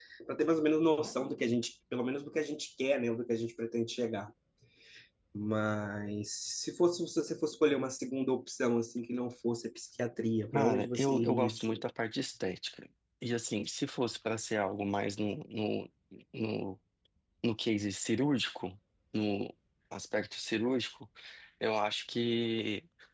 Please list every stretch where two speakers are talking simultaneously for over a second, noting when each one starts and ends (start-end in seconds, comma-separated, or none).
10.5-11.8